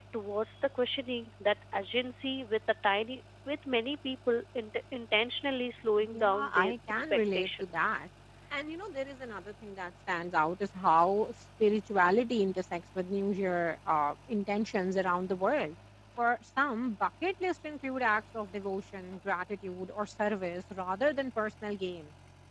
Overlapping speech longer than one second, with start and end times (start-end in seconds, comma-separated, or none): 6.0-7.9